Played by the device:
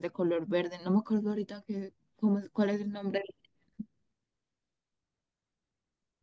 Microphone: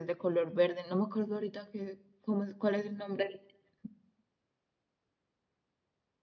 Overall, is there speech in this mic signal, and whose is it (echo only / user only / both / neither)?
echo only